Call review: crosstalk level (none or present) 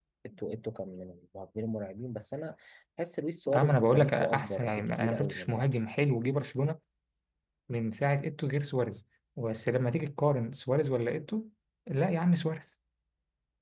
present